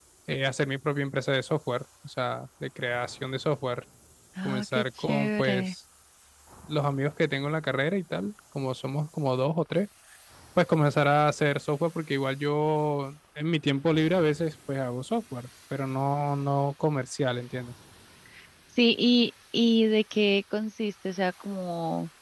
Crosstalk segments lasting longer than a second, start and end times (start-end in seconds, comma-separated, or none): 4.4-5.7